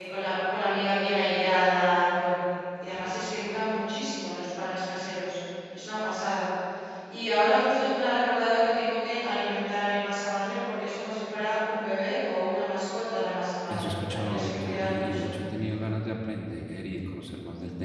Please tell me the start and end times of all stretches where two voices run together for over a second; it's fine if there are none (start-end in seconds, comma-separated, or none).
13.7-15.2